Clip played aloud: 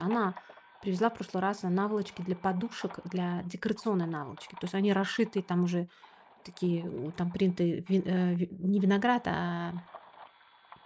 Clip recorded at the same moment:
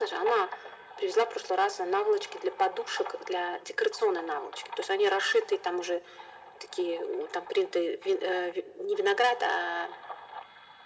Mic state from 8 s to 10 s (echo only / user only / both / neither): echo only